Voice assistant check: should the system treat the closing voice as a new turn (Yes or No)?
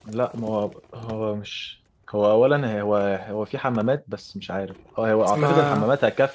No